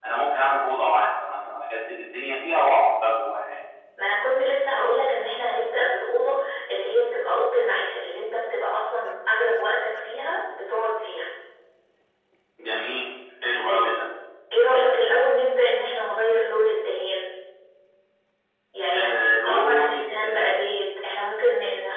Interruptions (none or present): present